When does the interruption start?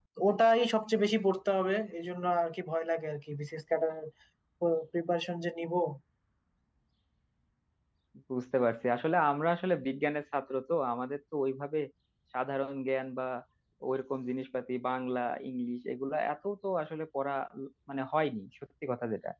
none

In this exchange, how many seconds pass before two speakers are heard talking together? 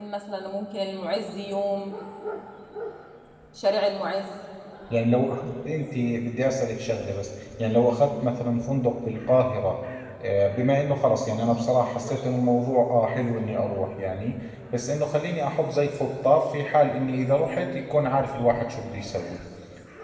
none

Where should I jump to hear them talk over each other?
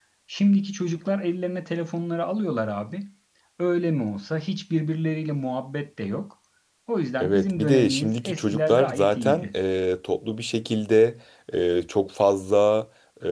7.2 s

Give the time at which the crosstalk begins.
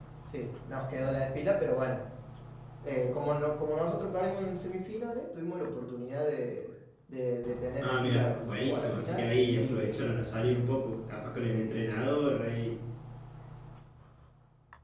7.8 s

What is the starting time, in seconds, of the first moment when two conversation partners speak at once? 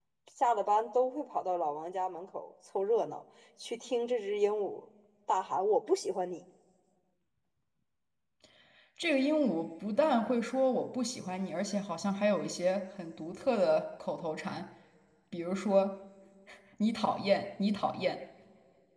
none

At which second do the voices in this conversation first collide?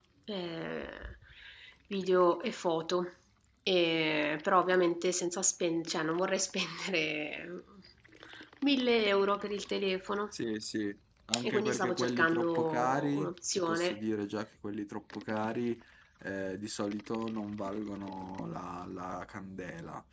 11.3 s

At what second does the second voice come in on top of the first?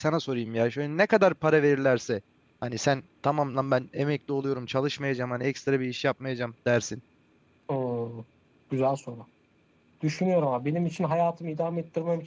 none

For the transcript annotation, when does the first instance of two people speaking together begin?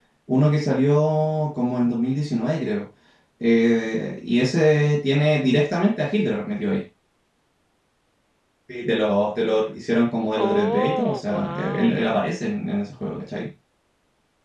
10.4 s

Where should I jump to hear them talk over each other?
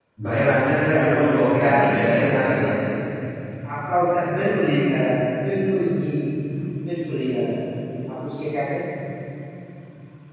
0.9 s

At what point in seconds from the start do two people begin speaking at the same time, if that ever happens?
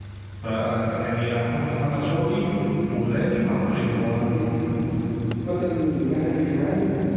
none

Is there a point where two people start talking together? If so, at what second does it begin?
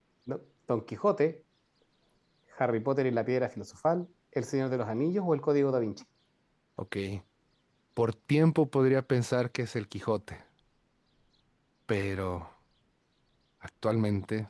none

